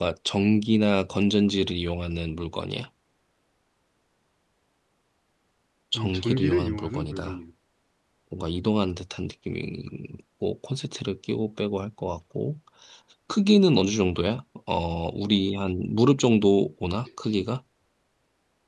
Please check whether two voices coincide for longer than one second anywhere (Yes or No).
Yes